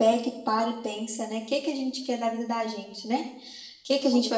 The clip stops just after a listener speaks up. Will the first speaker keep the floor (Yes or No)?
Yes